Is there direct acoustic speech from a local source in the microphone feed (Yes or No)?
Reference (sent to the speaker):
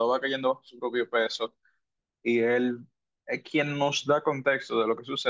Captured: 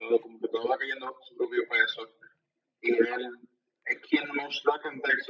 No